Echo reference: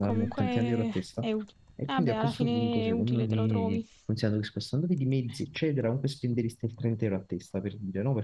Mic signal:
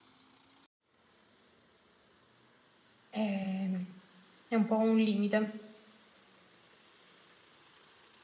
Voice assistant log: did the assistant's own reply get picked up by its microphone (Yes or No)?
No